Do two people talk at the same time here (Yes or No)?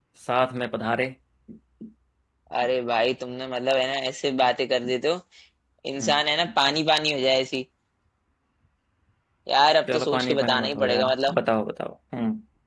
Yes